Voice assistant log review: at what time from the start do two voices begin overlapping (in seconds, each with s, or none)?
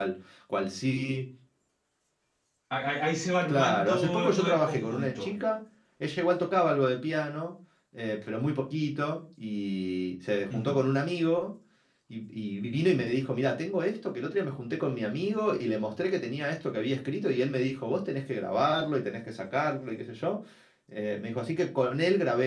3.5 s